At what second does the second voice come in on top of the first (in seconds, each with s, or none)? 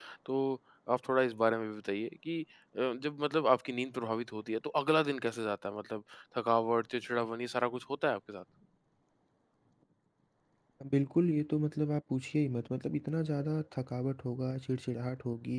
none